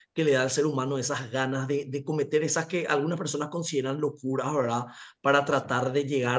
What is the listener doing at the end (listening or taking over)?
listening